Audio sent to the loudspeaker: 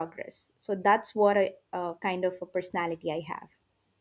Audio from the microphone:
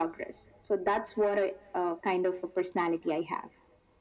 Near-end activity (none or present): none